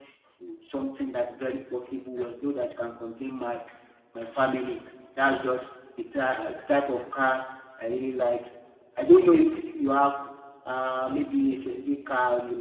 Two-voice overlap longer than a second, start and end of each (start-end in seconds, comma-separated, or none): none